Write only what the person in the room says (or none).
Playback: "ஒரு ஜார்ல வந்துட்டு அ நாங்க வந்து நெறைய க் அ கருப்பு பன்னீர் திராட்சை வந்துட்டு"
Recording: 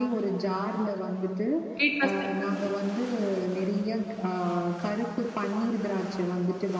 வீட்ல செய்ற